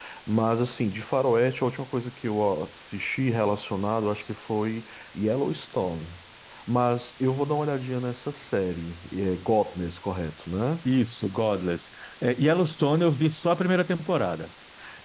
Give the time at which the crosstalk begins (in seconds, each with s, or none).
none